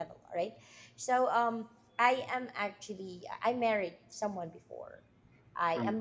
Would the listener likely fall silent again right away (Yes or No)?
Yes